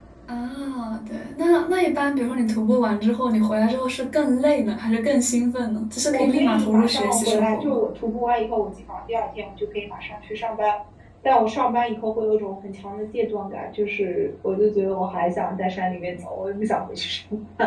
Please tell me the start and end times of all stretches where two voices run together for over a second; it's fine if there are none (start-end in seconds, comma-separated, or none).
6.1-7.8